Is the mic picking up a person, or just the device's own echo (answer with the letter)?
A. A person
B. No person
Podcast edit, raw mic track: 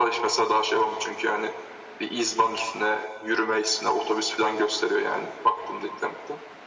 B